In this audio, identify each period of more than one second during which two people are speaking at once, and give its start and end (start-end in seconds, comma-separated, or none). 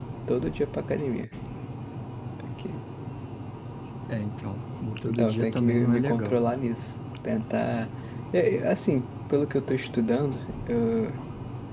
5.0-6.4